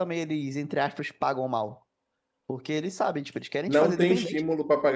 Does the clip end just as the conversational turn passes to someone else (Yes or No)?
Yes